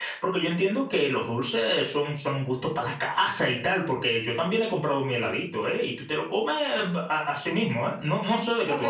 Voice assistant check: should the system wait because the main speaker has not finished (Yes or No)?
No